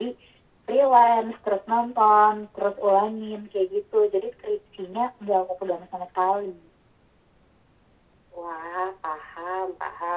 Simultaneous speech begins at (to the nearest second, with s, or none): none